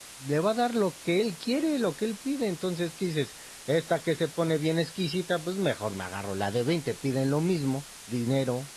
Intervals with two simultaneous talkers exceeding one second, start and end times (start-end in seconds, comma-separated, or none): none